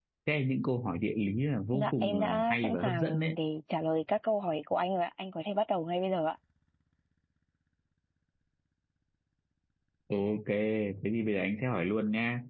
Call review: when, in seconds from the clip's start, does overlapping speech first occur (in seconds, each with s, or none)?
1.7 s